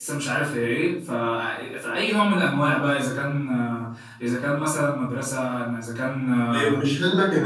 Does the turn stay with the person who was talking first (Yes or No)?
No